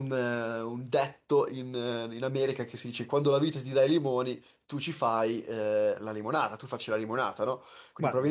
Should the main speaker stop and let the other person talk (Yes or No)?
No